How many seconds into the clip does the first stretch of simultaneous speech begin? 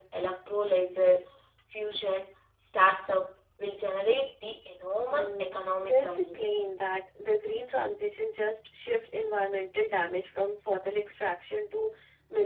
5.1 s

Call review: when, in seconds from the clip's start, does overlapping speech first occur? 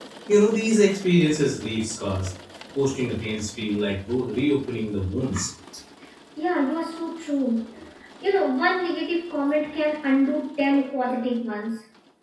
none

